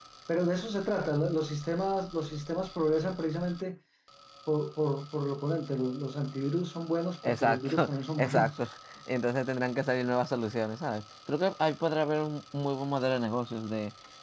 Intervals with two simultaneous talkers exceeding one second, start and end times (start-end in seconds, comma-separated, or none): 7.3-8.7